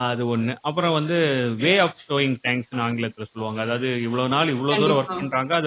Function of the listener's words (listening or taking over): listening